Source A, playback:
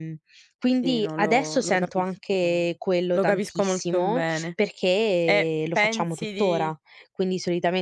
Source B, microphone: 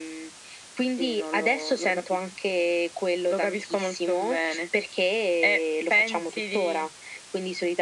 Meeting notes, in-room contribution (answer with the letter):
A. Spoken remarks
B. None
B